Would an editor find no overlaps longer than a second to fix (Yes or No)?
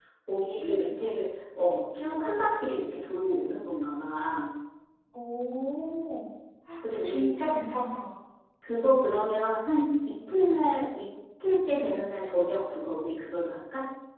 Yes